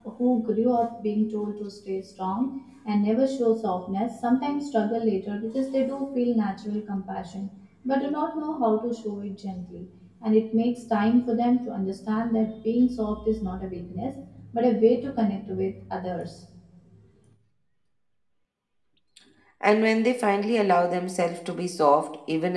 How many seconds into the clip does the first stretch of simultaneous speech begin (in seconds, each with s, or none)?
none